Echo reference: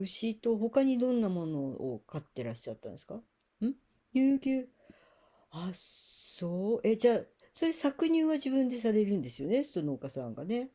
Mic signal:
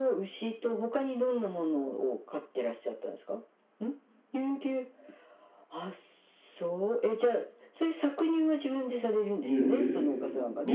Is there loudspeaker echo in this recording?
Yes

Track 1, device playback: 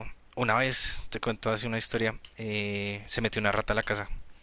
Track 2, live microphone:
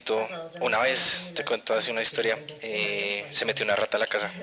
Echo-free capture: No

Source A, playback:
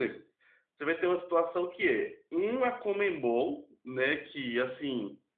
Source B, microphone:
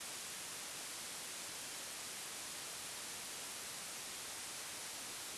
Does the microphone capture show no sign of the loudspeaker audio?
Yes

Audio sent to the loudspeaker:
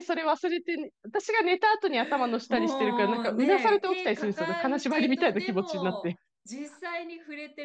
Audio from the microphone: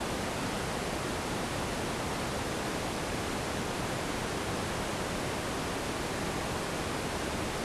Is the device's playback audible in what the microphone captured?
No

